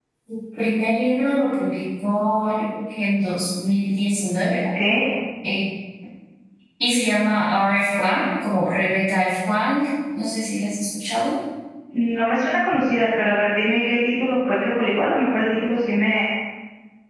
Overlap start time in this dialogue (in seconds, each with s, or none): none